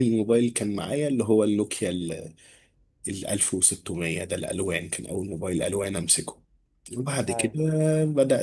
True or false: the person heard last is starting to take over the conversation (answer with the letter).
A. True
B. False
B